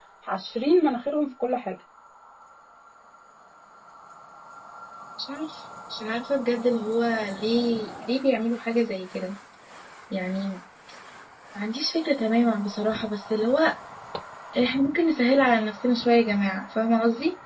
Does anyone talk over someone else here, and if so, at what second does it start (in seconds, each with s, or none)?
none